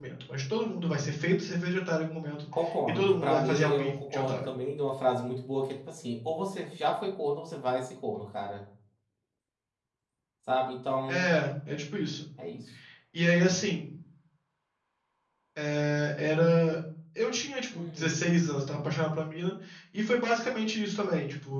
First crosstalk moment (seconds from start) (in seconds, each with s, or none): 2.9 s